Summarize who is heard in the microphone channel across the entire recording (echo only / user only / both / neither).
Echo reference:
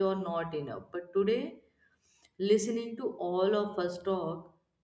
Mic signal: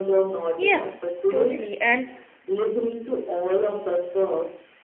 both